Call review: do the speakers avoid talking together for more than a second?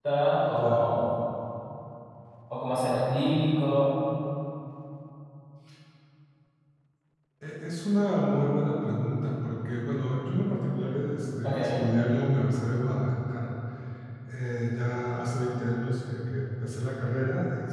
Yes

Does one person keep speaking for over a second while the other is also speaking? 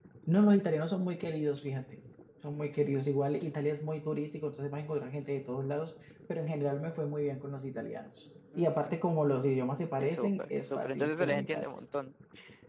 Yes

